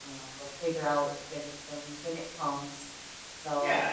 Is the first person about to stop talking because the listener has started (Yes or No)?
Yes